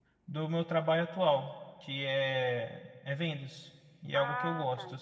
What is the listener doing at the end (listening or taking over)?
taking over